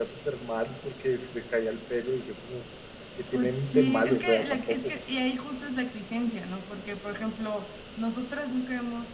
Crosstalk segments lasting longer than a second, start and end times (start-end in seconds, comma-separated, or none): 3.3-4.9